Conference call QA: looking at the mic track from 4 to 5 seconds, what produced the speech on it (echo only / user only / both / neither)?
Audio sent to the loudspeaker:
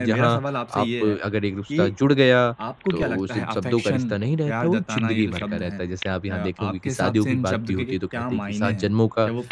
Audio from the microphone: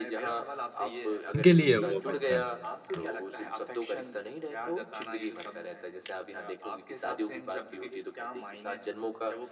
echo only